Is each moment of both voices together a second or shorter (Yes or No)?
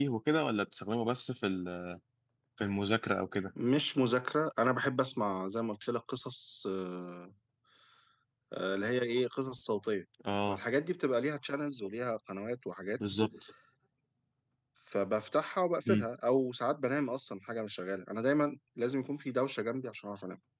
Yes